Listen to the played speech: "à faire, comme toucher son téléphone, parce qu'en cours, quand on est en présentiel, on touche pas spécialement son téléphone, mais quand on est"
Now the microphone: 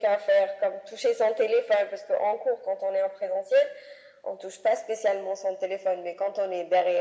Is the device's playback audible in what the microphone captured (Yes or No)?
Yes